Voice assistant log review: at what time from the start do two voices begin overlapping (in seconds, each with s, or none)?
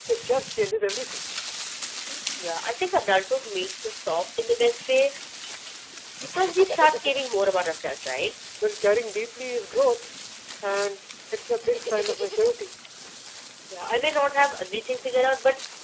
none